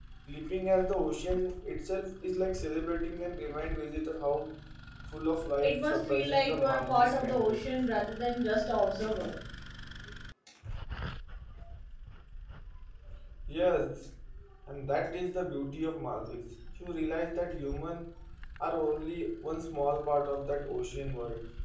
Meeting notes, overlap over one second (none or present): present